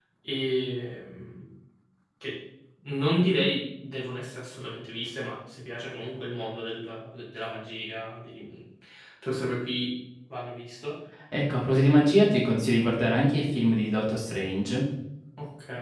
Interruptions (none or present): none